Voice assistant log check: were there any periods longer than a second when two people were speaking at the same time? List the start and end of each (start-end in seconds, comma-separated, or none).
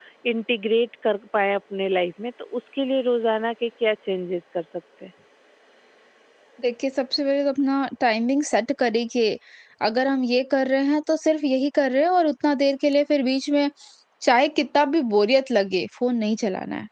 none